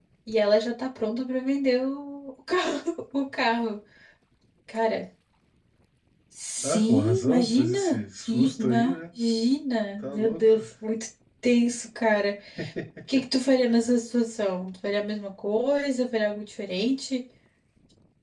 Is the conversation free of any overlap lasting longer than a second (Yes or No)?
No